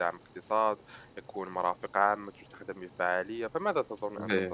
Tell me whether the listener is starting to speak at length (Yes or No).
Yes